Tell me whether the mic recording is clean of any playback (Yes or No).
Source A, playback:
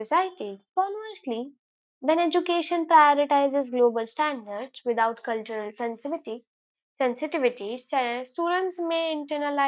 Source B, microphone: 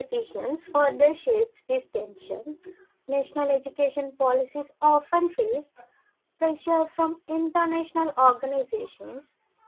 Yes